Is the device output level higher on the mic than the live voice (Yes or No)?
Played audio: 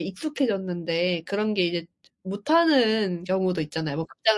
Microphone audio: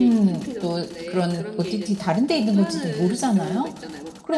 No